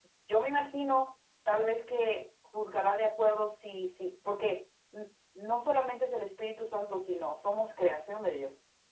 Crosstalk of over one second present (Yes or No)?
No